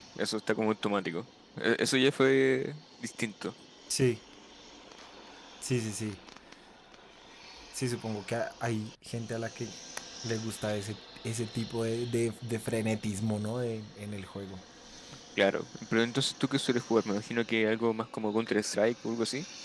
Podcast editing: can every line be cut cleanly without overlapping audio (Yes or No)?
Yes